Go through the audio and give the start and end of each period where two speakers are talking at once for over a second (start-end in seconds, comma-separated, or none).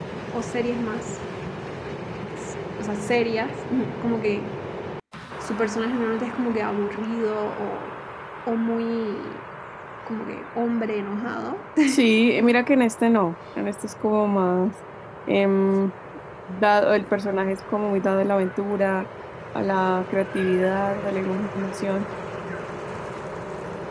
none